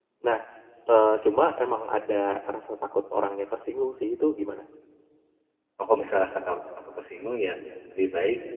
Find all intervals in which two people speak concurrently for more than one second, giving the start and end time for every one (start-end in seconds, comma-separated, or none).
none